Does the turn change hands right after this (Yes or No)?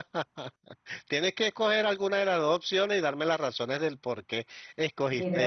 Yes